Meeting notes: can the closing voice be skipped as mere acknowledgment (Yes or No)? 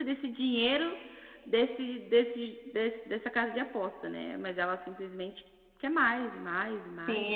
No